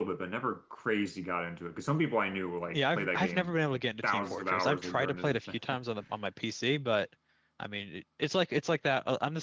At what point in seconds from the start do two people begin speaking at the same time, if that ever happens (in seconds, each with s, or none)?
2.7 s